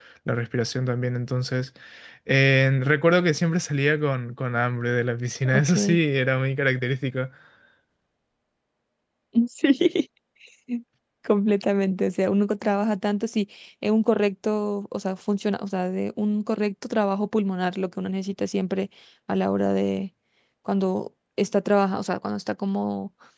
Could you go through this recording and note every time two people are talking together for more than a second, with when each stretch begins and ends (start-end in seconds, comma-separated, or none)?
none